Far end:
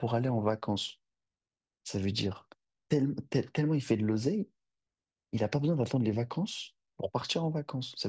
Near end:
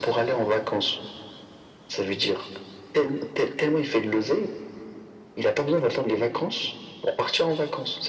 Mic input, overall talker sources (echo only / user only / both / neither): echo only